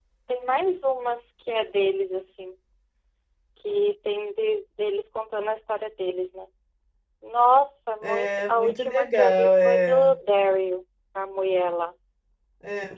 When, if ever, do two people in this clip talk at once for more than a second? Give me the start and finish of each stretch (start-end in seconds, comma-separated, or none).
8.0-10.1